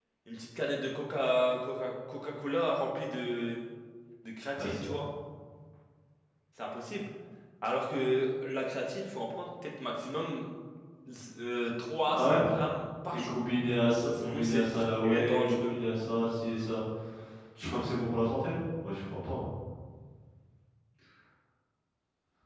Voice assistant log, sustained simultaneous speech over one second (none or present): present